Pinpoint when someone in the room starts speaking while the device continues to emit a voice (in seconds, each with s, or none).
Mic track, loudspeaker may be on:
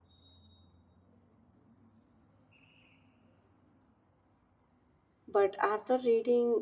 5.2 s